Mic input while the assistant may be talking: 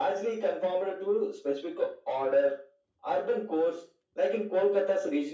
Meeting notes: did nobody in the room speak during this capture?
Yes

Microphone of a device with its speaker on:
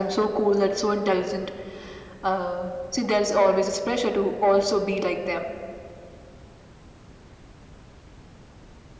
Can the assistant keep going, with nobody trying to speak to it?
Yes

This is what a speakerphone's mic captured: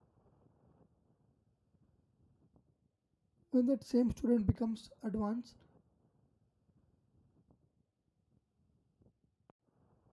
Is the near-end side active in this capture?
Yes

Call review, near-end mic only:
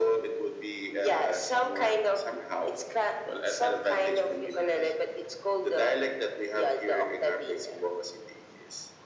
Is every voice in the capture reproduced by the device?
Yes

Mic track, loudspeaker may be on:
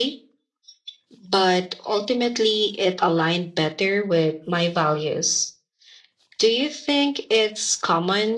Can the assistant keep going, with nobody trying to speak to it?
Yes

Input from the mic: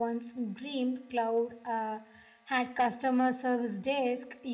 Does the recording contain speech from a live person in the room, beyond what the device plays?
Yes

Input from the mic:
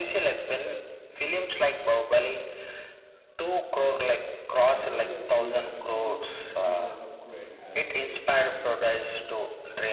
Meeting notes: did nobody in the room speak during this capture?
No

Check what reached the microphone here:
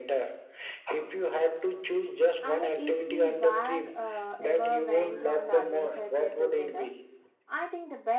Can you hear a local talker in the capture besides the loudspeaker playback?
Yes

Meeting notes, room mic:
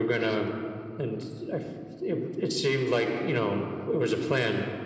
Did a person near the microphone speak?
No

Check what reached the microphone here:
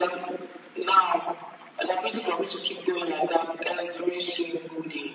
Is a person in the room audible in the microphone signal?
No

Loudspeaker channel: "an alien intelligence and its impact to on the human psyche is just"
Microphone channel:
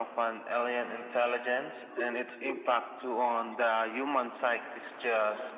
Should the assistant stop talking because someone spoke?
No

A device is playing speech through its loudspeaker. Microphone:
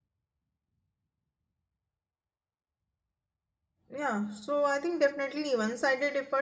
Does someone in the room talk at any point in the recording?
Yes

